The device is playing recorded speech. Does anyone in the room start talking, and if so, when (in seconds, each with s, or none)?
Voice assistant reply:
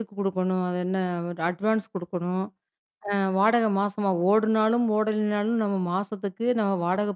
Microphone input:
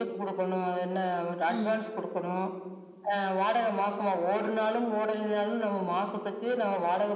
1.5 s